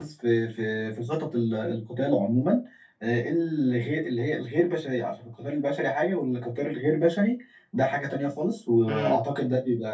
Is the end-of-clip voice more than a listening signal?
No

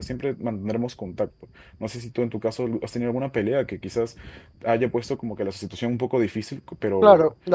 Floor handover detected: Yes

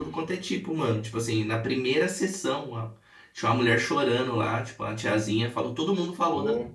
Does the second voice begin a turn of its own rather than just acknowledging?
No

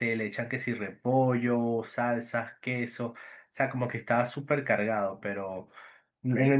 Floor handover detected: No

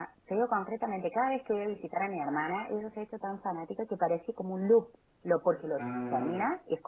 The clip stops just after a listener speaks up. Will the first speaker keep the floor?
Yes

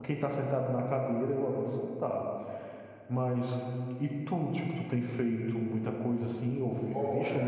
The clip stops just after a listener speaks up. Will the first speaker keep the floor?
No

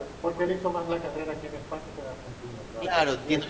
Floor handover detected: Yes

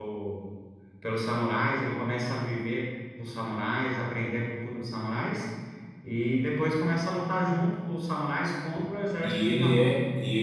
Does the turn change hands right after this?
Yes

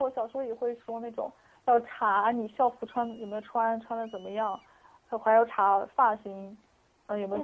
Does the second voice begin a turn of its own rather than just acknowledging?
Yes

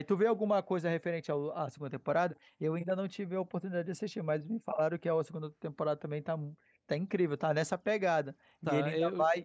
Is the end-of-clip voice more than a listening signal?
No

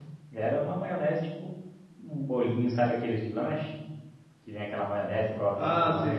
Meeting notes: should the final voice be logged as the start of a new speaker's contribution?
Yes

